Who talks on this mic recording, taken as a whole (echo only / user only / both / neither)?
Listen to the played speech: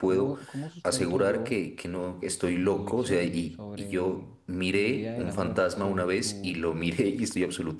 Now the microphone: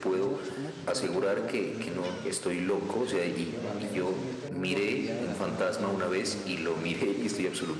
both